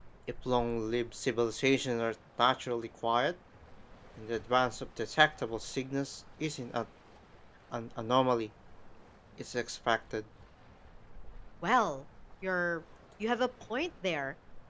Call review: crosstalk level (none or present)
none